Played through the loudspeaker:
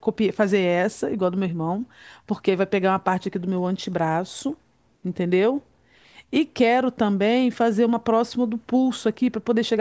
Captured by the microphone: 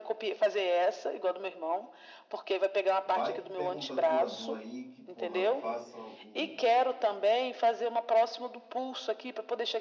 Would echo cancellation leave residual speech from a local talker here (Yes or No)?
Yes